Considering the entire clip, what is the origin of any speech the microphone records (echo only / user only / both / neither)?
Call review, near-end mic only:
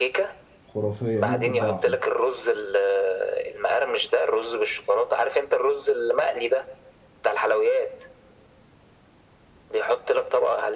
both